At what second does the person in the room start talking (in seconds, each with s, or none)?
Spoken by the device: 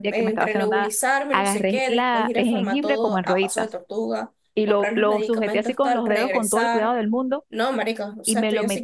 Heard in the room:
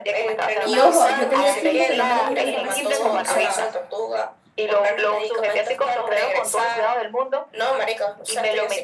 0.6 s